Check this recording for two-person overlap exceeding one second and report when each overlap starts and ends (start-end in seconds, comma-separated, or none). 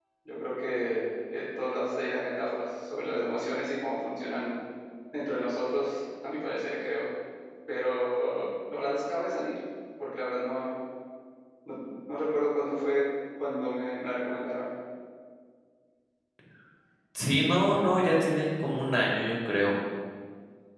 none